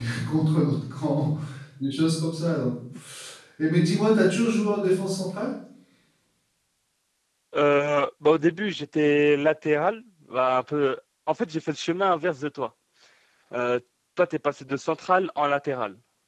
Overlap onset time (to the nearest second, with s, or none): none